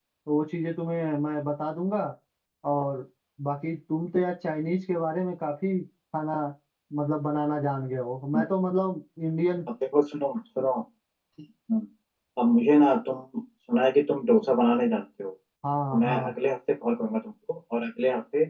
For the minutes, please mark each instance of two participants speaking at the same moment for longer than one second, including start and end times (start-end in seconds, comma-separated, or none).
none